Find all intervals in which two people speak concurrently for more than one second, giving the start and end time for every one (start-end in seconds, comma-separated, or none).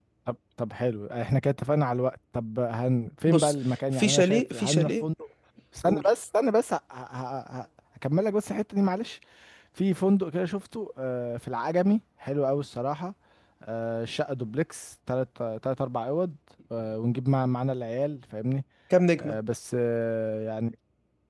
3.3-5.0